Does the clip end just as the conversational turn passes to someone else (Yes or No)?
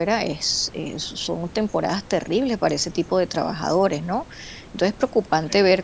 No